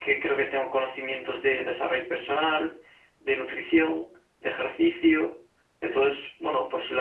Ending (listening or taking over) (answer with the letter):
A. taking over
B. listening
B